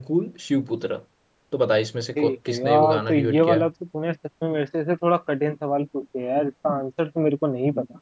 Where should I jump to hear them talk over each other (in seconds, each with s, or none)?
2.2 s